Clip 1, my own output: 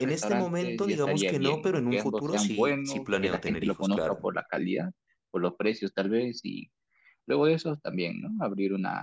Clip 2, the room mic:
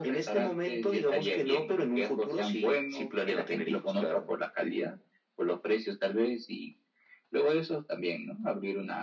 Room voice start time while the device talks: none

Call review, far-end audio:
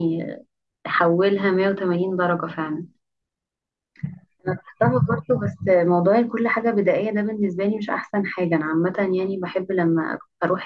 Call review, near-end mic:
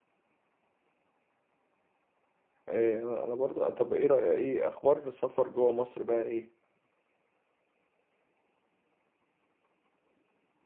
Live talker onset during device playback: 3 s

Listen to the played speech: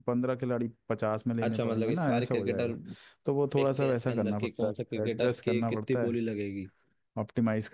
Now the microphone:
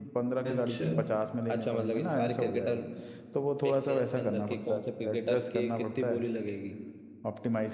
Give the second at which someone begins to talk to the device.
0 s

